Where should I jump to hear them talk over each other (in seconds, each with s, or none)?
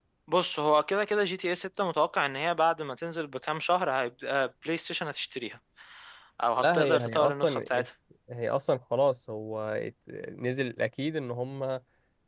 6.6 s